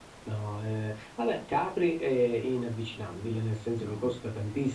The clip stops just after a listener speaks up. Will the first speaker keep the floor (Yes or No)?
Yes